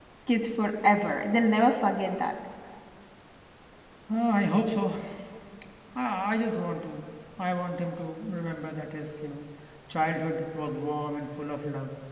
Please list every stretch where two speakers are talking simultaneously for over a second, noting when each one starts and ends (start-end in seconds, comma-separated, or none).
none